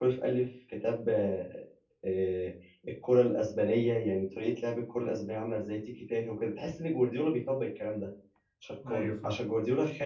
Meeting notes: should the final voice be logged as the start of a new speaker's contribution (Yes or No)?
No